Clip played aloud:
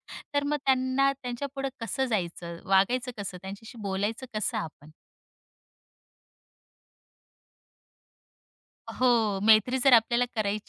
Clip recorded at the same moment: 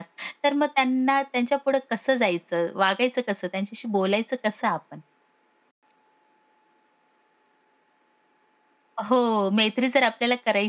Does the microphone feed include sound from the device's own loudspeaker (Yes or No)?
Yes